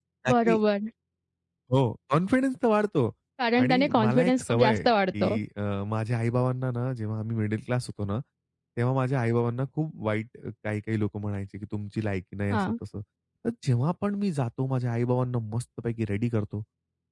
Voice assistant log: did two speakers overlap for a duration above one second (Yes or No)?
Yes